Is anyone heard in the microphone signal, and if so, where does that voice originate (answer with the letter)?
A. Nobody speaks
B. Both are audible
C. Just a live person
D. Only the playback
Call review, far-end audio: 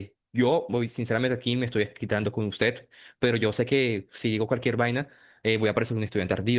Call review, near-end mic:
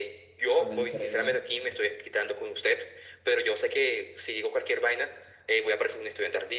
B